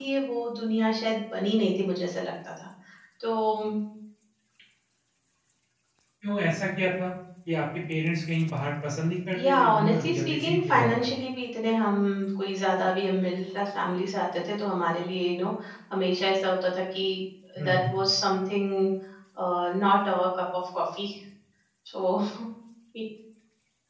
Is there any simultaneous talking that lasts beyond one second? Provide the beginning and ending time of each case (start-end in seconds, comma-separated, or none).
9.3-11.1